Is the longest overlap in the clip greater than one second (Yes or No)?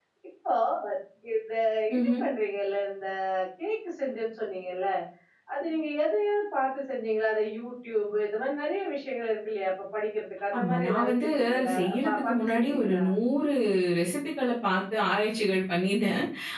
Yes